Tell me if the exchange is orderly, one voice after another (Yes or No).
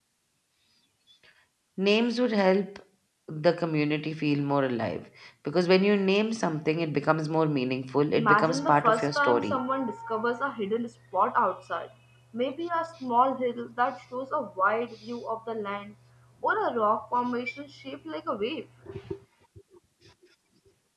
No